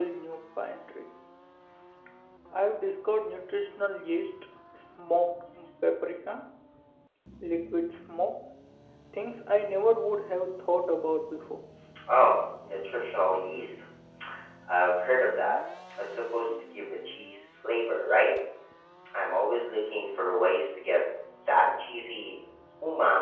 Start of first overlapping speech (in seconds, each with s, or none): none